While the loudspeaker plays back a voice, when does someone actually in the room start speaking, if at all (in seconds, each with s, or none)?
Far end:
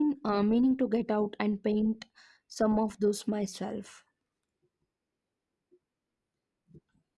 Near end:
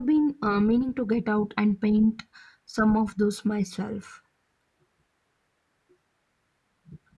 none